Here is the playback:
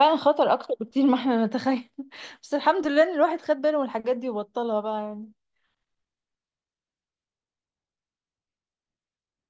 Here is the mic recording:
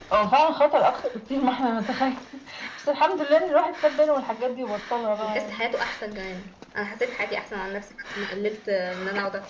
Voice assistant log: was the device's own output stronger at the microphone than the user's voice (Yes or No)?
Yes